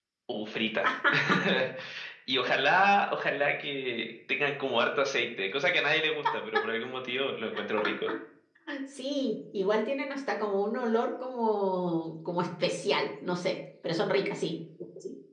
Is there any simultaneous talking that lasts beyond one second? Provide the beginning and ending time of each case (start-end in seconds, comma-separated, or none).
none